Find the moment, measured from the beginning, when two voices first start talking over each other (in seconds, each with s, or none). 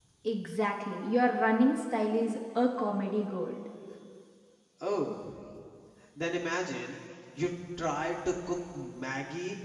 none